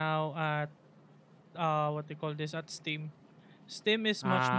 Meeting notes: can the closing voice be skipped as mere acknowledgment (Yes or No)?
Yes